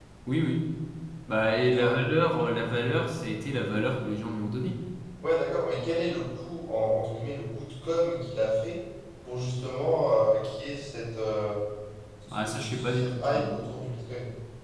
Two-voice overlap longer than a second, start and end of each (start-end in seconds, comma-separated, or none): 12.3-13.6